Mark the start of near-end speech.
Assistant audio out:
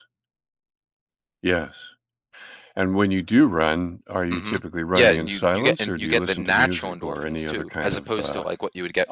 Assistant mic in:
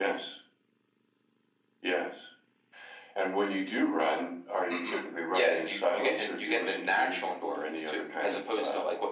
none

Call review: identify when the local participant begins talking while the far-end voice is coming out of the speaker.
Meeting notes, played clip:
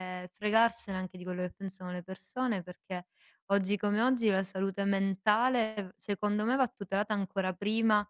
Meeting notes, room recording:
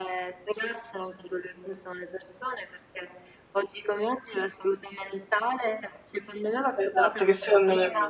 6.7 s

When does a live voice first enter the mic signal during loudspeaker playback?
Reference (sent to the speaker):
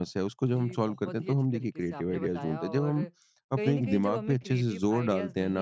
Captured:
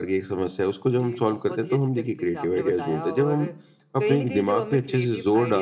none

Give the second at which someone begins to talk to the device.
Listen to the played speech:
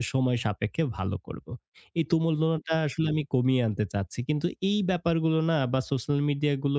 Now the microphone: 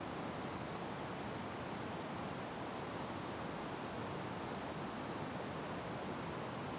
none

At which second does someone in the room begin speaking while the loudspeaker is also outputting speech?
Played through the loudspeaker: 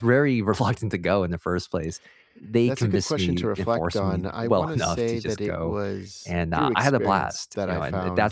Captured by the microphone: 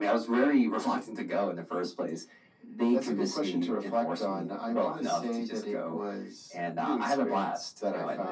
none

